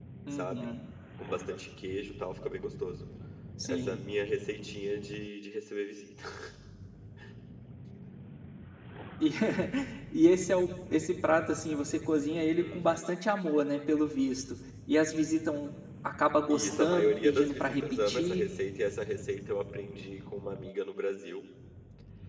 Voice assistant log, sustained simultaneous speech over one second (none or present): present